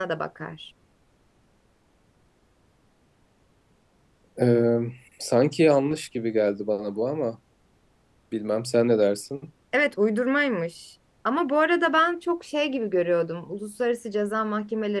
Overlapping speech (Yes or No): No